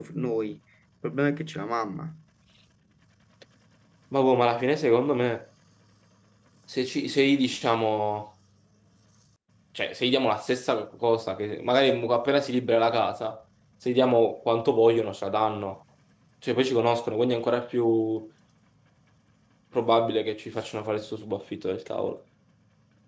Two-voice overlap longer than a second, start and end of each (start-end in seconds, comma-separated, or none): none